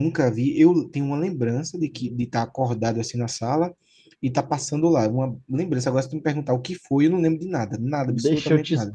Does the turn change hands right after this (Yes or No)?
Yes